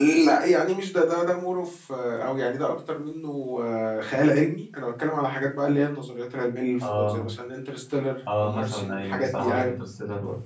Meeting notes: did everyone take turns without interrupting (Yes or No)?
No